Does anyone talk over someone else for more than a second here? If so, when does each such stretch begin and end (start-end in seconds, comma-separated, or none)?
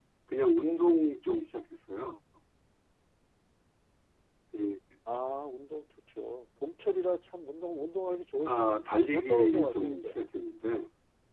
8.5-10.2